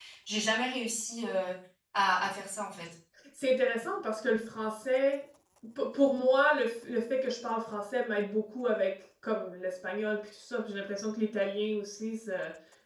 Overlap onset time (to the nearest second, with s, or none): none